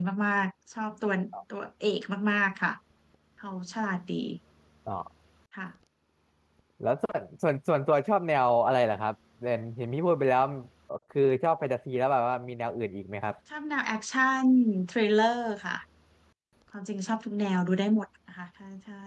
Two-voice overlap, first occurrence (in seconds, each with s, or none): none